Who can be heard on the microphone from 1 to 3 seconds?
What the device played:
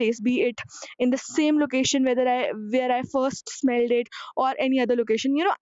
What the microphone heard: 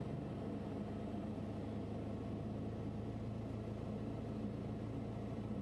neither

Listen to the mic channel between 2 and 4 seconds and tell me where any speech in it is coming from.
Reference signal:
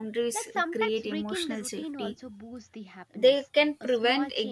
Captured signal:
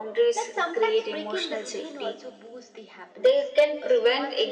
echo only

